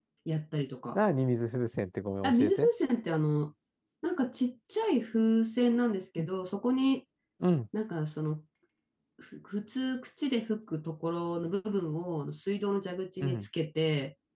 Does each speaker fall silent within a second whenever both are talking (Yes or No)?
Yes